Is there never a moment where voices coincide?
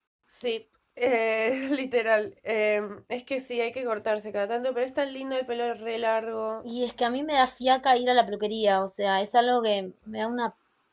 Yes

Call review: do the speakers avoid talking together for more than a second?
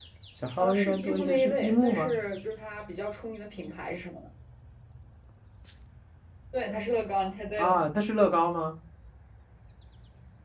No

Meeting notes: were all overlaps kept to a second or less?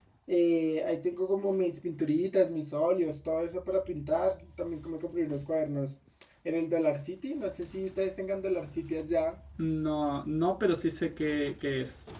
Yes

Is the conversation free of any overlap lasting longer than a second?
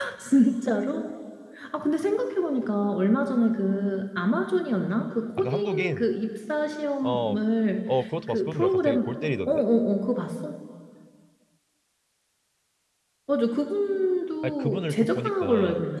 No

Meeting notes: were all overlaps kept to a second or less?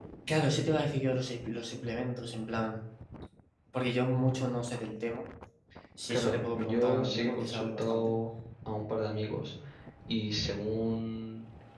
No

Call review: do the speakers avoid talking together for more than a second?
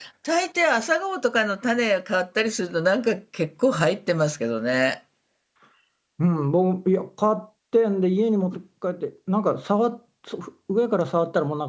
Yes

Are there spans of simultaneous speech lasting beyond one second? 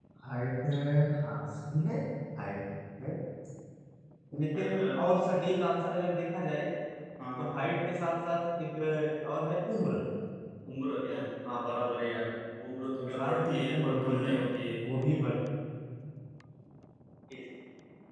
Yes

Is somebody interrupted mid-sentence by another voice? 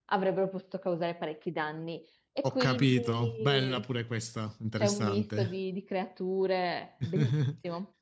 Yes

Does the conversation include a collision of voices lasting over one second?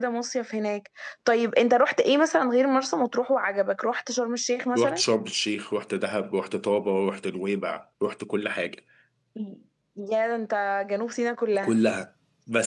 No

